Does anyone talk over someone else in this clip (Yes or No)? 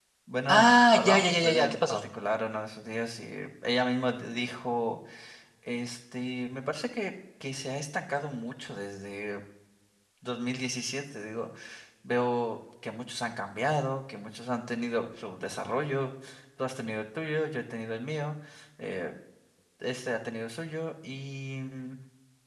Yes